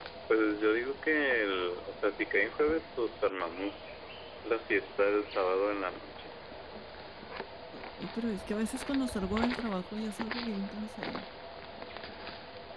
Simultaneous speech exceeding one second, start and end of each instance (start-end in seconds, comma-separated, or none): none